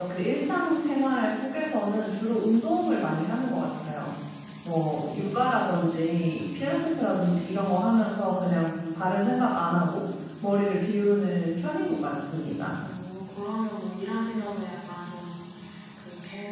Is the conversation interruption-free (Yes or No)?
Yes